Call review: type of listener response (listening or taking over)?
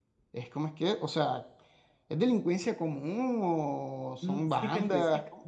taking over